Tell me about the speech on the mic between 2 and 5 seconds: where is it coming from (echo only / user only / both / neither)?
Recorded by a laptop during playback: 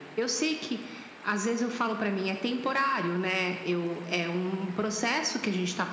echo only